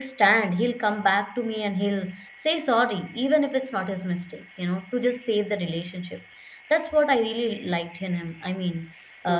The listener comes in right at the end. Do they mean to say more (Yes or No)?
No